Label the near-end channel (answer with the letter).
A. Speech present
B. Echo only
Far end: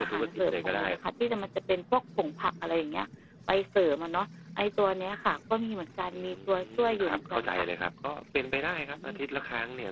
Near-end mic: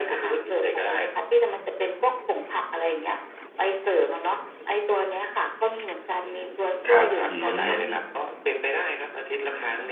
A